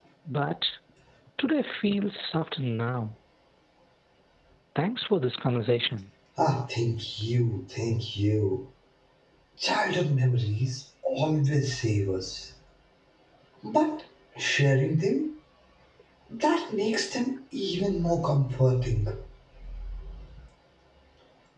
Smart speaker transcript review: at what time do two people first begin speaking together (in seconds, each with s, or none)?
none